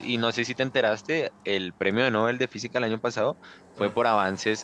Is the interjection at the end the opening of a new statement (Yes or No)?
No